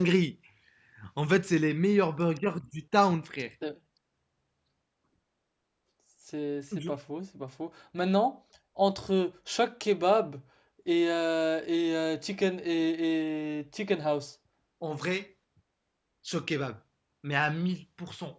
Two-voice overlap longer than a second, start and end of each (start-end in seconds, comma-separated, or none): none